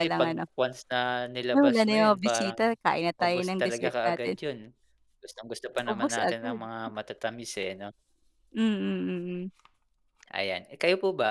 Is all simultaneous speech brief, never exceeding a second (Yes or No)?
No